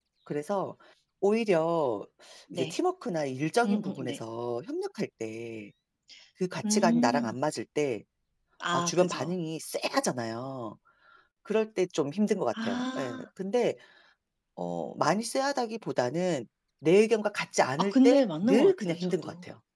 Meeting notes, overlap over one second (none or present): present